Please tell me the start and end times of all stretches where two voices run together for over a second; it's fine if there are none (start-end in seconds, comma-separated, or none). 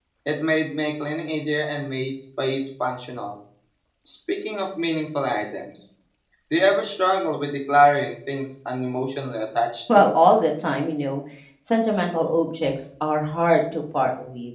none